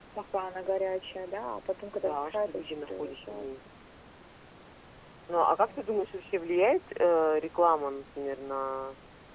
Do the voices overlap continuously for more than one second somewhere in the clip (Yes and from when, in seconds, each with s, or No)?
Yes, from 1.9 s